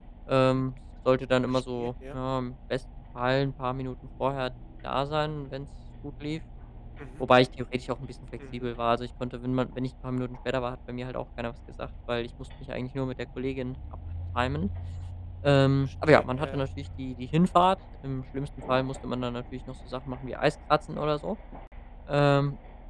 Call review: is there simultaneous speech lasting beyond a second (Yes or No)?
Yes